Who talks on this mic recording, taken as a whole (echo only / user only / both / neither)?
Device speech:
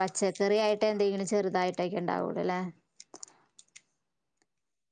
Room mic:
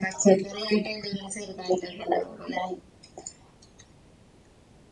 echo only